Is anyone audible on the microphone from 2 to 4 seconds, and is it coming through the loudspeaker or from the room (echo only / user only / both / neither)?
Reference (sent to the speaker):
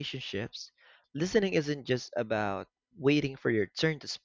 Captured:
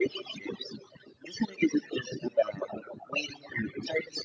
echo only